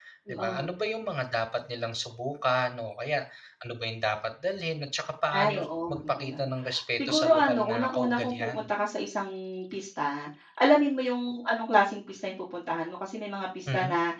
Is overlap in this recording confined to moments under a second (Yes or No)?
No